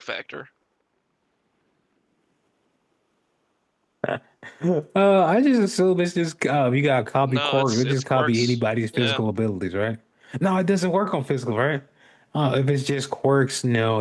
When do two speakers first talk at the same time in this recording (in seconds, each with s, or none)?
7.3 s